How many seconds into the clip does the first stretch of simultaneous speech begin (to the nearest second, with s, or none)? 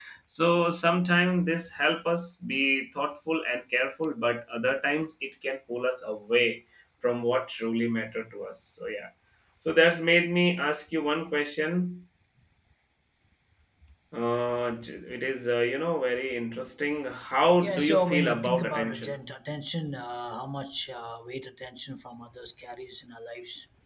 18 s